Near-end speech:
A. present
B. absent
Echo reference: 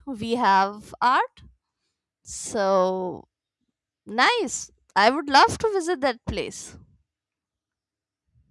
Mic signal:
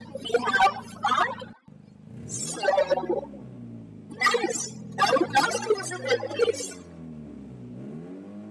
B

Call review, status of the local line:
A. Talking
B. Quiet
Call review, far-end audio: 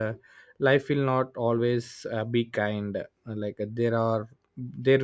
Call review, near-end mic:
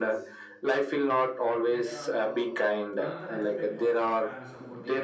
A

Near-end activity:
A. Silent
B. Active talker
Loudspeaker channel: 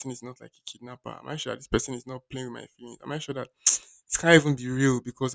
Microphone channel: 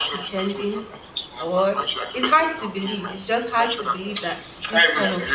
B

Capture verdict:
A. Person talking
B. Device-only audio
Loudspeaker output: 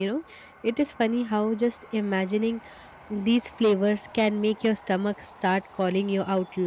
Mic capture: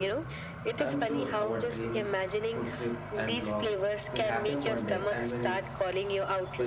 A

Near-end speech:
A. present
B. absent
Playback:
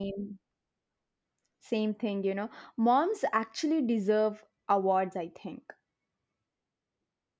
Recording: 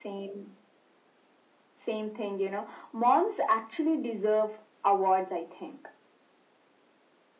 B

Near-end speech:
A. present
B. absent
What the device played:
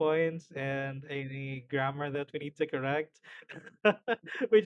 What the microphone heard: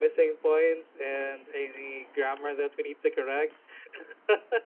B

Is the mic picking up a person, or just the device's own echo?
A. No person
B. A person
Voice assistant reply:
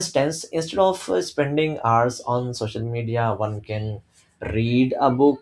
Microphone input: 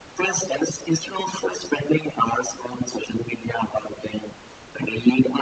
A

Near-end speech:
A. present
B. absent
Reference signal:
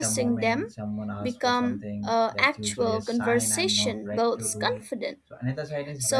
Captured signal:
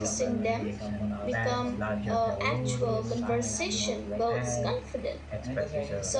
A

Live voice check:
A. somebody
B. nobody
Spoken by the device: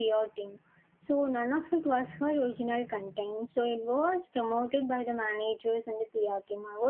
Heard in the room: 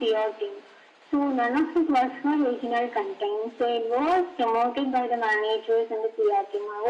B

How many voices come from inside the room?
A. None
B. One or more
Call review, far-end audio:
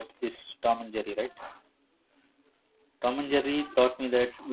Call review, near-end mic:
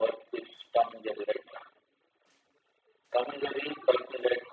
A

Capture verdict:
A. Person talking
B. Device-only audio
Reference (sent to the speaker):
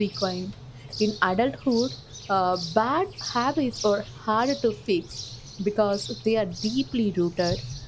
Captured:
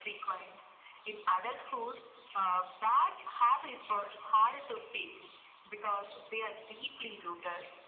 B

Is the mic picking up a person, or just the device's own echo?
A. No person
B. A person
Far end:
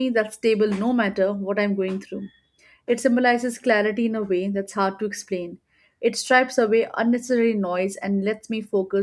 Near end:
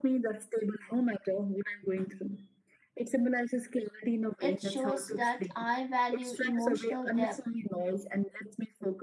B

